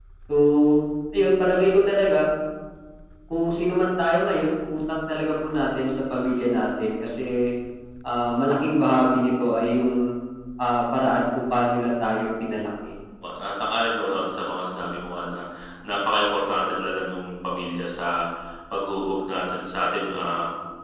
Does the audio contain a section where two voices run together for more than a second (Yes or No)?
No